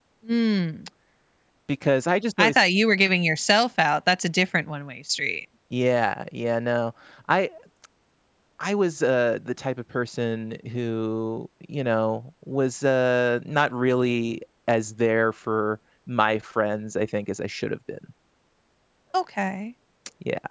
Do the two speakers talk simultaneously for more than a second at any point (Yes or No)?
No